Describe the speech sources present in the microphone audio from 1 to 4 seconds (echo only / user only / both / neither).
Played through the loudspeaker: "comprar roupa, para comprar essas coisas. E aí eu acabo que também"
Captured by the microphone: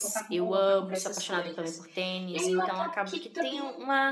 both